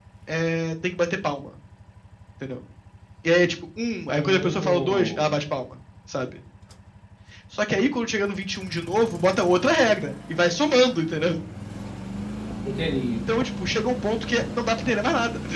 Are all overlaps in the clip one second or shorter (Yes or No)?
No